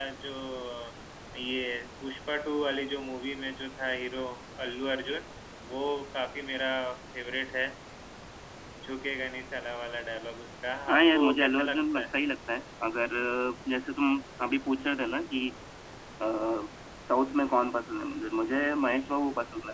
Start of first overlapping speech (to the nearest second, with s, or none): 11 s